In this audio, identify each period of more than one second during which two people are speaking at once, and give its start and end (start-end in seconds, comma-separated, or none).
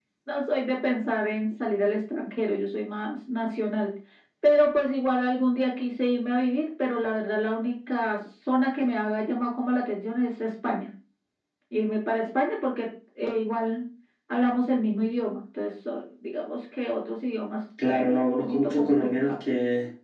17.9-19.3